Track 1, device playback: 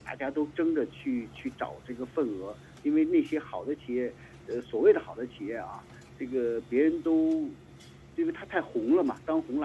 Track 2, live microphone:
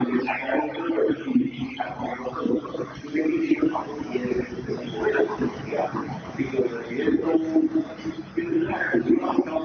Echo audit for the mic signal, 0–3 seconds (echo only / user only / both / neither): echo only